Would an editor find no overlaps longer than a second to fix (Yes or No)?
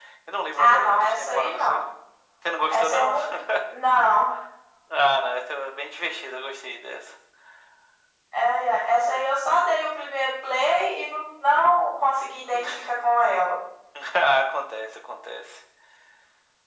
No